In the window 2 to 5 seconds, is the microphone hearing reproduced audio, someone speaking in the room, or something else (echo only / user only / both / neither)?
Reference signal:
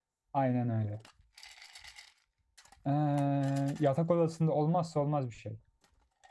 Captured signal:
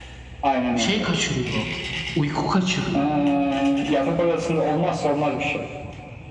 both